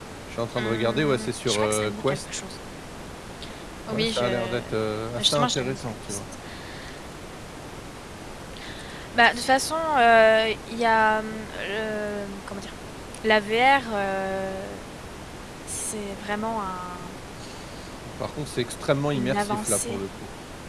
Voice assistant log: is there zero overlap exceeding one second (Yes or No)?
No